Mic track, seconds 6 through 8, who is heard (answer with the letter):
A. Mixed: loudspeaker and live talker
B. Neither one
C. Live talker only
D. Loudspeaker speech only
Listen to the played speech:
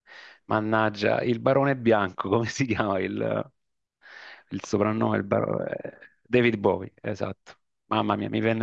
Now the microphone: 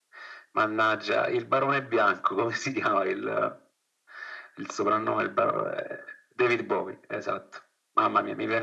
D